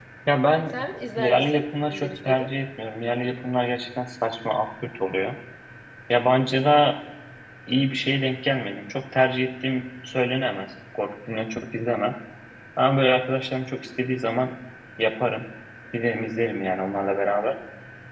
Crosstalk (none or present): present